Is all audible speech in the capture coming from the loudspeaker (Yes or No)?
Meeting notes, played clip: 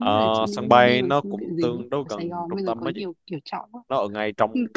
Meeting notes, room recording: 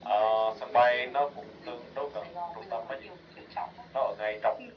Yes